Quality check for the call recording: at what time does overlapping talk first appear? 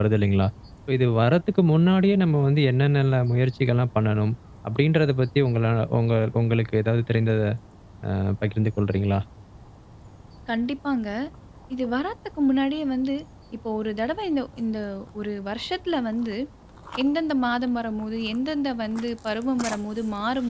none

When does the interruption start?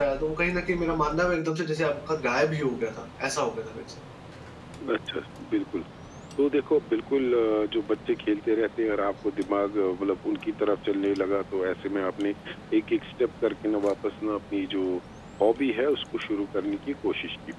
none

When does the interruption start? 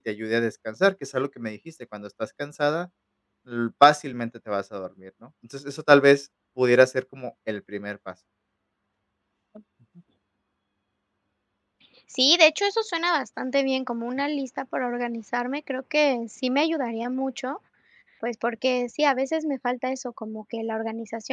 none

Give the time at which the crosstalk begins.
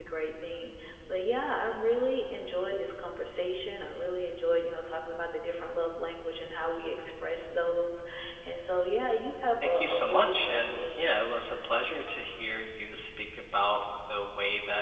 9.6 s

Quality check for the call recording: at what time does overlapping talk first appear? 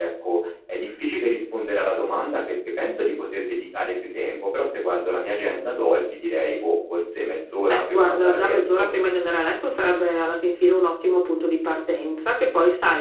7.7 s

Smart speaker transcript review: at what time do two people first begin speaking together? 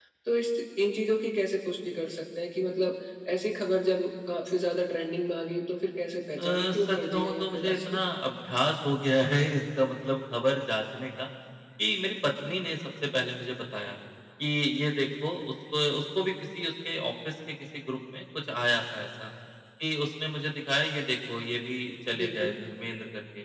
6.4 s

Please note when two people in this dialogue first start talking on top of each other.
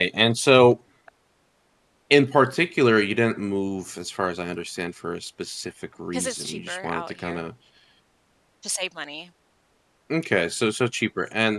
6.1 s

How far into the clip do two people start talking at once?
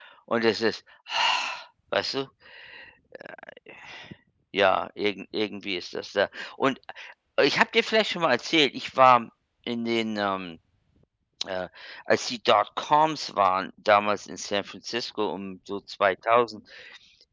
none

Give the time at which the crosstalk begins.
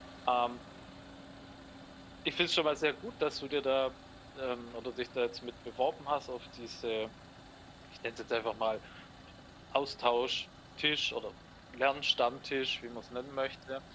none

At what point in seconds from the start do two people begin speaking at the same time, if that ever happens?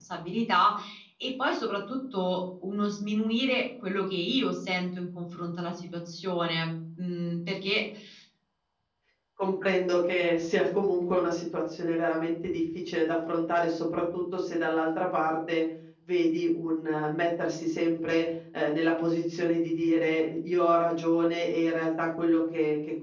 none

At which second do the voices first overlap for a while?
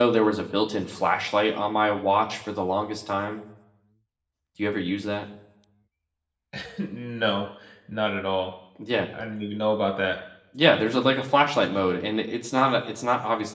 none

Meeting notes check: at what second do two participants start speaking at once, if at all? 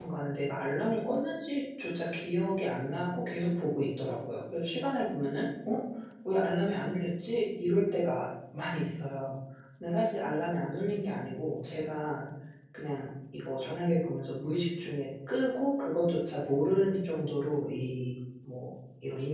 none

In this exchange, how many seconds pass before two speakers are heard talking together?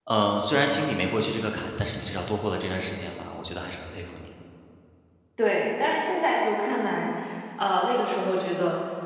none

